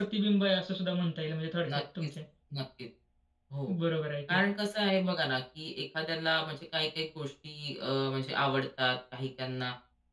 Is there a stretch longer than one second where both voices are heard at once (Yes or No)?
No